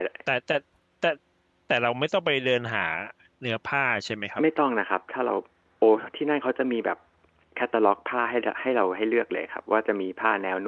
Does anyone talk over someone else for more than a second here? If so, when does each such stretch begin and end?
none

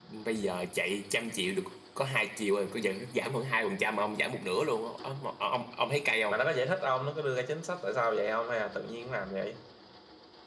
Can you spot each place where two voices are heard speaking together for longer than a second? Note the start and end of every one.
none

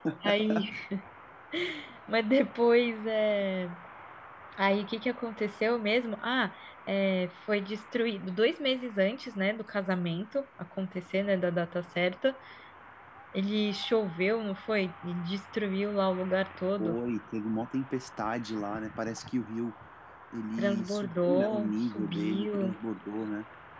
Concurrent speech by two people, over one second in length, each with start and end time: 20.6-22.8

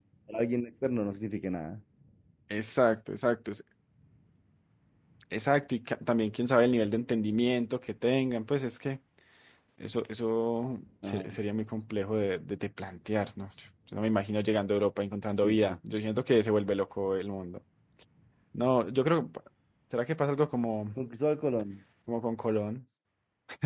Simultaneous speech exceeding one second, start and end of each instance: none

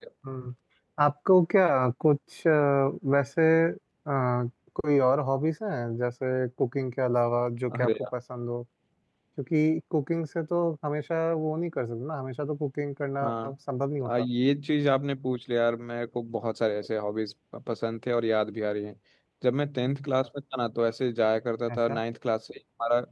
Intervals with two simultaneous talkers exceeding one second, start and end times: none

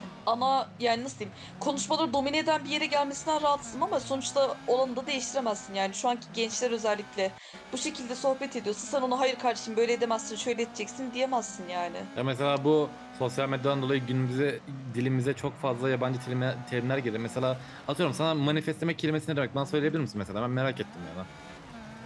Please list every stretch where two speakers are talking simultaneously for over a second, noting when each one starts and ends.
none

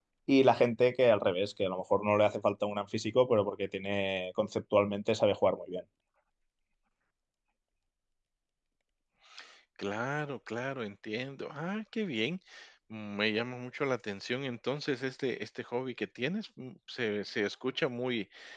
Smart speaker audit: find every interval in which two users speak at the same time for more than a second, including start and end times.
none

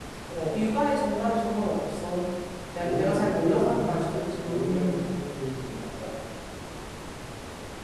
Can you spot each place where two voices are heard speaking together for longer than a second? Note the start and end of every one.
2.8-5.1

